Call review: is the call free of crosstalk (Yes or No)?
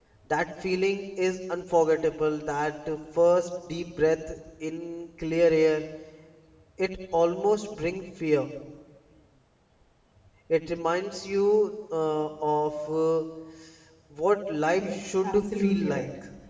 No